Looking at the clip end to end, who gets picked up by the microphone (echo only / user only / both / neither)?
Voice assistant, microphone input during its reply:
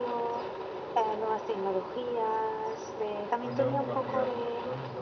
both